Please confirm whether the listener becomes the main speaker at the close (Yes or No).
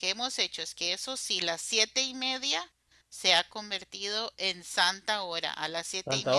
No